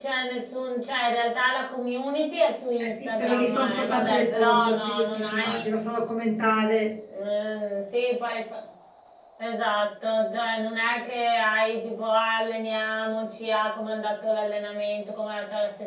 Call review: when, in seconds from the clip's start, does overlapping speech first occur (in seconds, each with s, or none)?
2.8 s